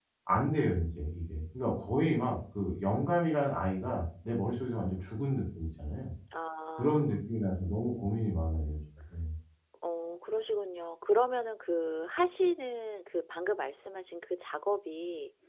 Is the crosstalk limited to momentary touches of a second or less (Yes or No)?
Yes